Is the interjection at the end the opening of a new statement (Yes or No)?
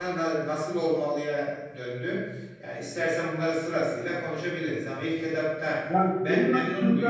Yes